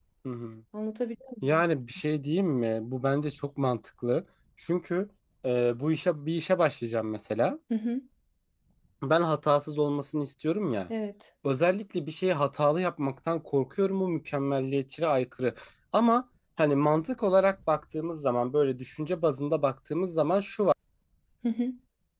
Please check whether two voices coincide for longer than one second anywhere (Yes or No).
No